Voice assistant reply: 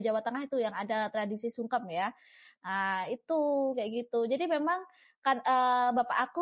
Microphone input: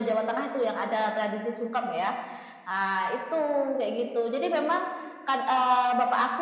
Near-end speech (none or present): none